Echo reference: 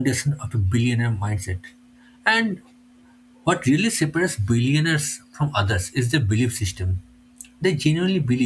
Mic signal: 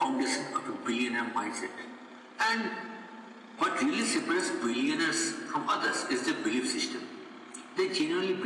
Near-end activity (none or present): none